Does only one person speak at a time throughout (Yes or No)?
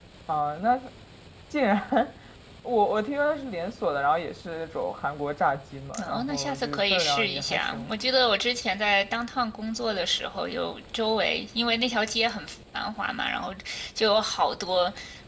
No